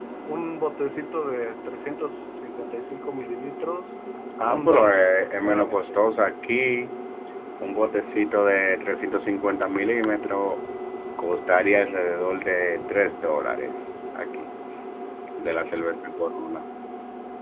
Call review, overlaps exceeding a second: present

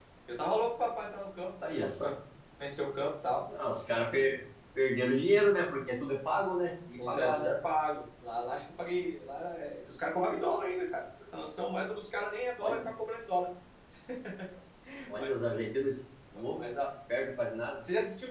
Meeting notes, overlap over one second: none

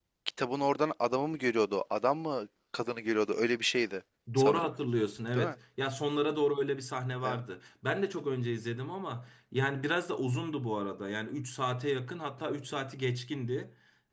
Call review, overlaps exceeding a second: none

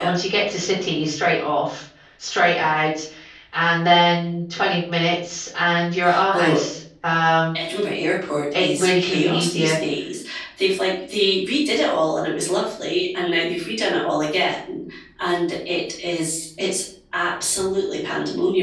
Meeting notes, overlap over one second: present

